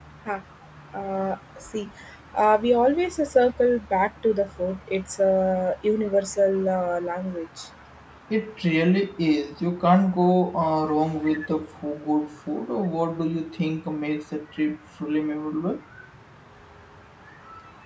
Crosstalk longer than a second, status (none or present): none